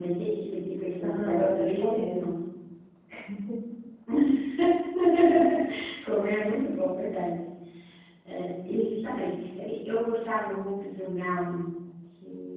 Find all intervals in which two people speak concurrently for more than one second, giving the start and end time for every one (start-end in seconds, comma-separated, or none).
0.9-2.3